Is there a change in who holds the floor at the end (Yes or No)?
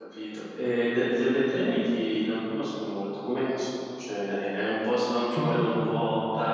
No